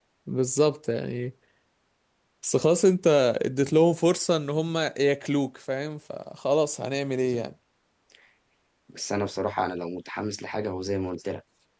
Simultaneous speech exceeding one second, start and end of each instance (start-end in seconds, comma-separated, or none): none